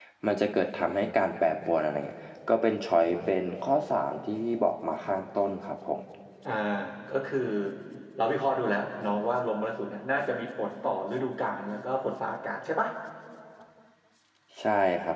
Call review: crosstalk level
none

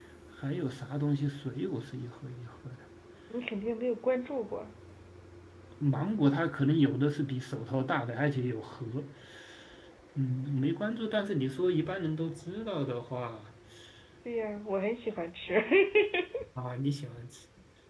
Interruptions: none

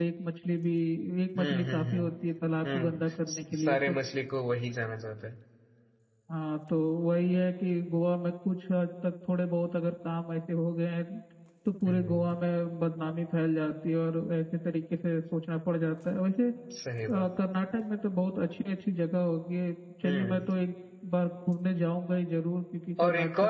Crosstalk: present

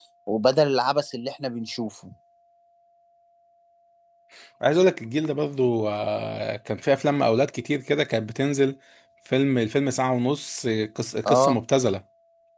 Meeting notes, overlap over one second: none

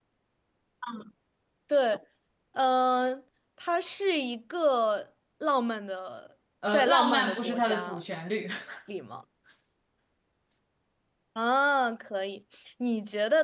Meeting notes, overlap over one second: present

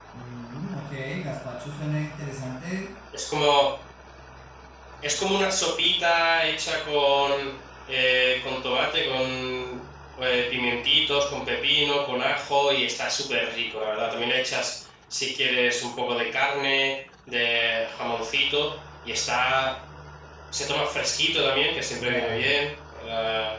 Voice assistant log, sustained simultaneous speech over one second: none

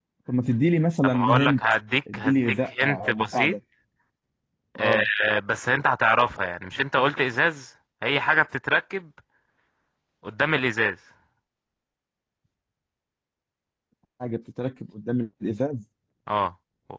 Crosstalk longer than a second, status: present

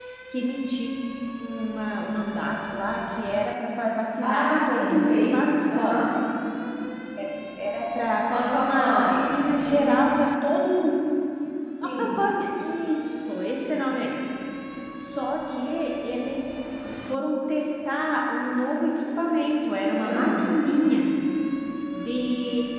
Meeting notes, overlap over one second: present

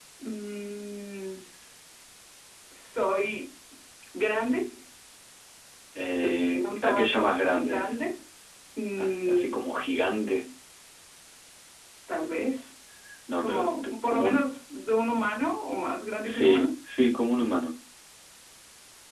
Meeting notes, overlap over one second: present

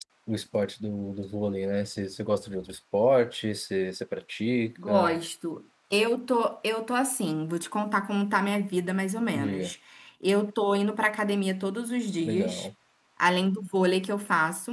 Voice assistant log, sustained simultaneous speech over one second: none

